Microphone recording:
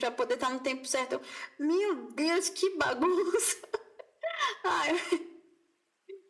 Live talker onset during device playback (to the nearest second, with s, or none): none